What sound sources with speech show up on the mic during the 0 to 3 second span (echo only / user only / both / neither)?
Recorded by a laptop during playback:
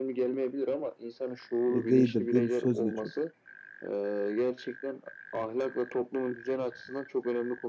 both